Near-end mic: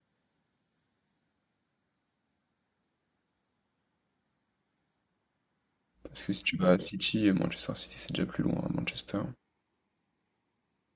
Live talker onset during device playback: 6.1 s

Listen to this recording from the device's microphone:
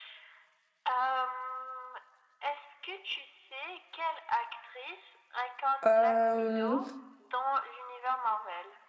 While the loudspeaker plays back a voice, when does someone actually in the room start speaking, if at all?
5.8 s

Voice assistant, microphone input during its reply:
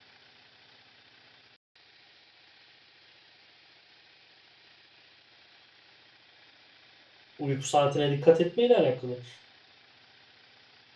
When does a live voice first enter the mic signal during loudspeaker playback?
7.4 s

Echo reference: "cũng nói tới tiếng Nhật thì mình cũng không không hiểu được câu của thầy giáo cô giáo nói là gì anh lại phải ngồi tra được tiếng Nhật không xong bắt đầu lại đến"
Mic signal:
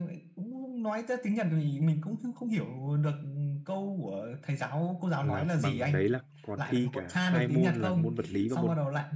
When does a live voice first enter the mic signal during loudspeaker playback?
5.2 s

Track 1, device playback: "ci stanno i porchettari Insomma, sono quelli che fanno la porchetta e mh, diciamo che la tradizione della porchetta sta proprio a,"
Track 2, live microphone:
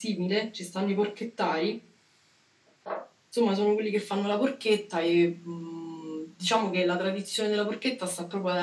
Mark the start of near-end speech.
none

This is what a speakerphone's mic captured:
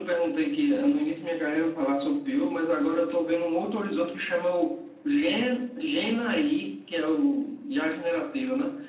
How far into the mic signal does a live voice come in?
none

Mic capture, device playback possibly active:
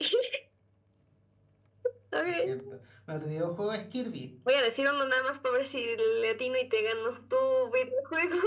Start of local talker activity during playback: 2.2 s

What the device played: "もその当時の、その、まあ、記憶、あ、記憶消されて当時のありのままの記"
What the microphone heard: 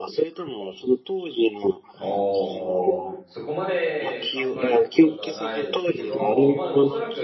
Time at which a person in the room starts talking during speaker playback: 2.0 s

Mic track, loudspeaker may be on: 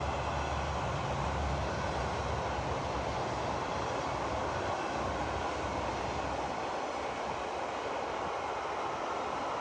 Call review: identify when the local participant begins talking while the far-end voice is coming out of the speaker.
none

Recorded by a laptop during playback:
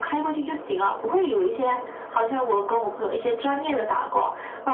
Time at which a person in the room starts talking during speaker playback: none

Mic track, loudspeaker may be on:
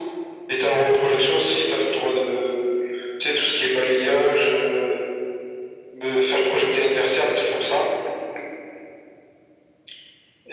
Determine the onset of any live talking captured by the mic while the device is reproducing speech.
none

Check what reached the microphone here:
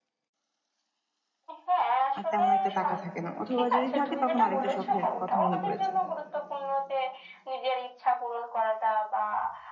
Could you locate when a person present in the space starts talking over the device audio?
2.2 s

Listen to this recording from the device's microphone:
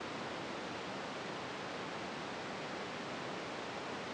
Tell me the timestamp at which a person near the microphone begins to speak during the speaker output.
none

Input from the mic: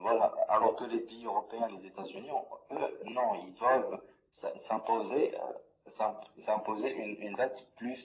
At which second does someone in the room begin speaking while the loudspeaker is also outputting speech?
none

